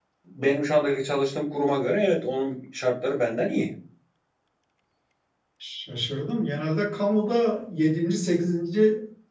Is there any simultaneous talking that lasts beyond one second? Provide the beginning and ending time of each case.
none

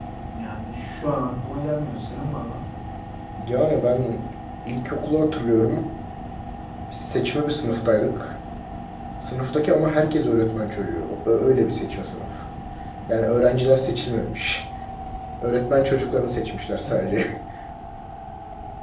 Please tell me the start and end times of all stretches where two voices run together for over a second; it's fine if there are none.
none

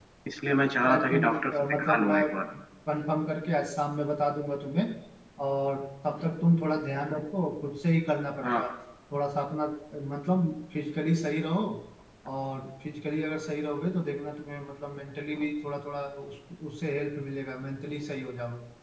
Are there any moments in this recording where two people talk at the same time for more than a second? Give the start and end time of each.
0.9-2.2

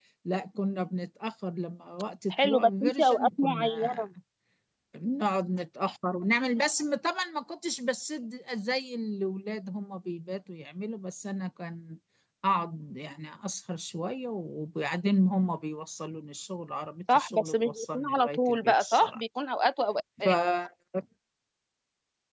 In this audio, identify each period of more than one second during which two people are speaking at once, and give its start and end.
2.3-4.0, 17.1-19.2

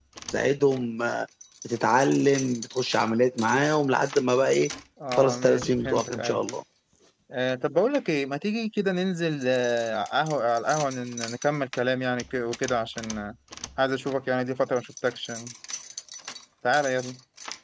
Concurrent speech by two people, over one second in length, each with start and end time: 5.1-6.4

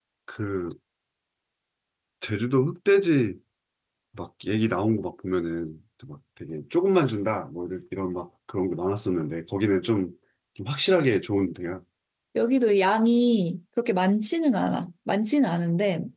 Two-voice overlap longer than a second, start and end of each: none

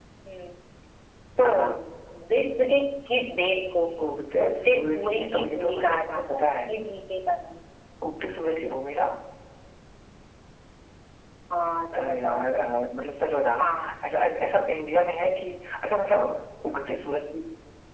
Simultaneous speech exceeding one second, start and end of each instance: 4.4-6.5

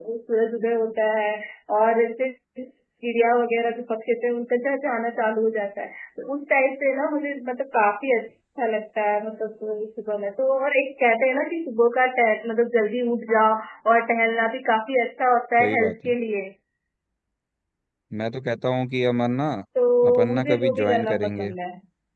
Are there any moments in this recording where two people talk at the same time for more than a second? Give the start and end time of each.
20.1-21.5

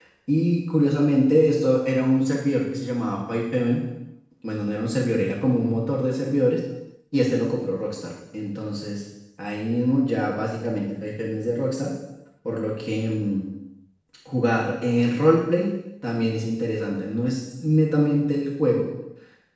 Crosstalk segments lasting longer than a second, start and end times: none

